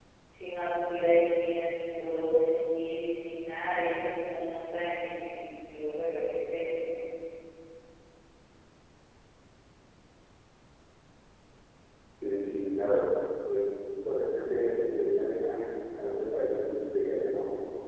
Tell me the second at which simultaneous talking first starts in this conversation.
none

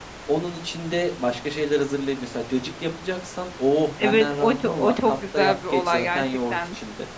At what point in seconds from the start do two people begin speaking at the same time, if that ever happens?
4.0 s

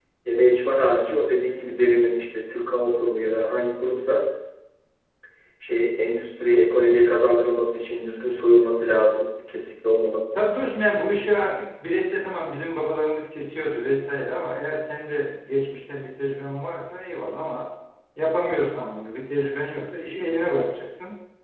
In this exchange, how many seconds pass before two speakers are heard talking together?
none

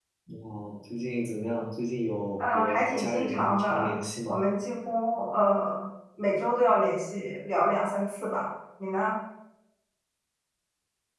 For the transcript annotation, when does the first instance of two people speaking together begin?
2.4 s

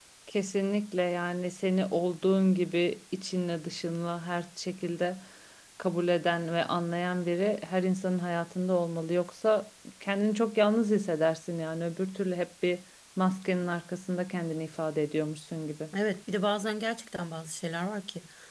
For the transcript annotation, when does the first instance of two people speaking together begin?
none

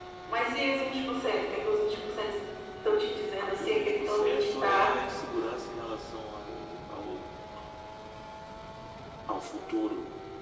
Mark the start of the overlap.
3.4 s

